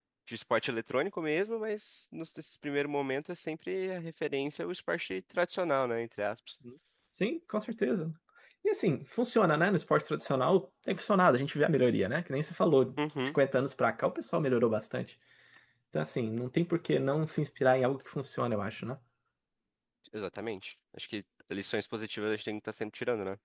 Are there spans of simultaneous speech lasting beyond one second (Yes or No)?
No